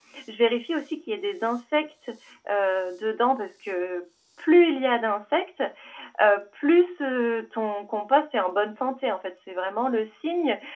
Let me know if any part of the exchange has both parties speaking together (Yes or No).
No